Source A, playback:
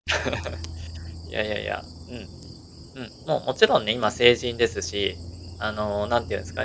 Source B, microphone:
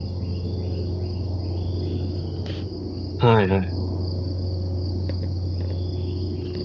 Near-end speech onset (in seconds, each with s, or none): 3.2 s